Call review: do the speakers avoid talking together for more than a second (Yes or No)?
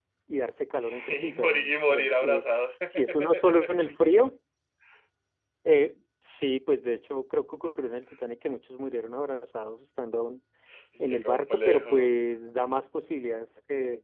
No